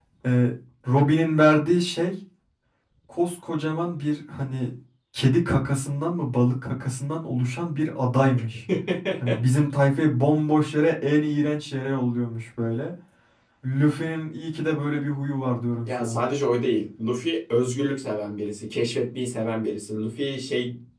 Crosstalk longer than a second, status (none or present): none